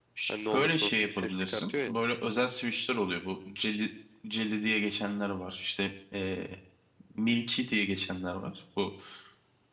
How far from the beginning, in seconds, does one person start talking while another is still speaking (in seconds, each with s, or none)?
0.5 s